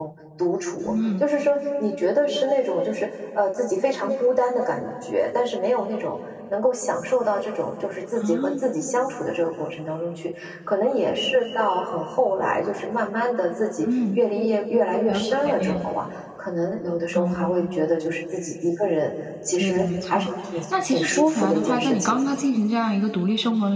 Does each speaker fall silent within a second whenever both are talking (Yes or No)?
No